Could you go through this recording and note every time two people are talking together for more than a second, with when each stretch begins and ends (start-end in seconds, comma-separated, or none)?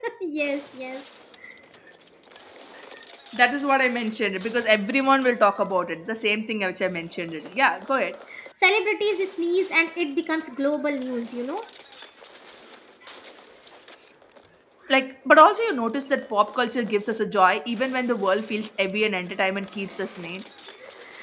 none